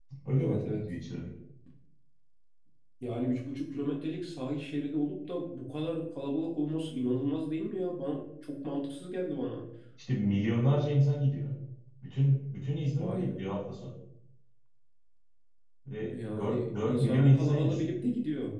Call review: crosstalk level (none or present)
present